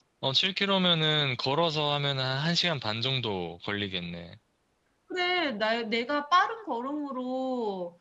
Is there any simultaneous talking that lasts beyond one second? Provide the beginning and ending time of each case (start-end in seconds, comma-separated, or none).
none